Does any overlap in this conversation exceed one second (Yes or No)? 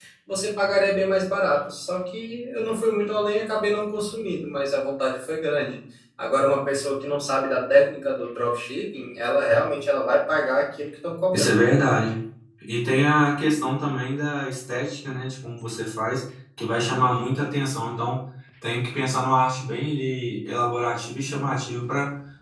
No